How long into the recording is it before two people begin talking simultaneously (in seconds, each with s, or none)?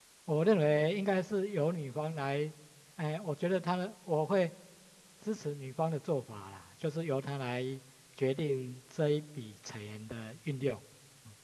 none